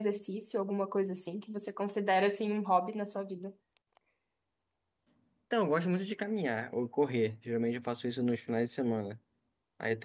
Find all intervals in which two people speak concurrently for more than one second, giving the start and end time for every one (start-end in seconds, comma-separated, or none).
none